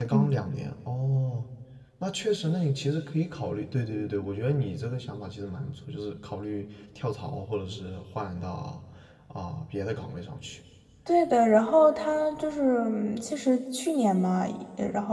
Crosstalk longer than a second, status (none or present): none